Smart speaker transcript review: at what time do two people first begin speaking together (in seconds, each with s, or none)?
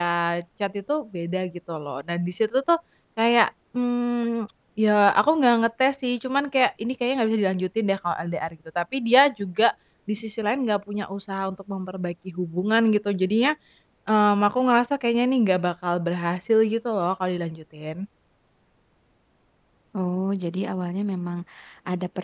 none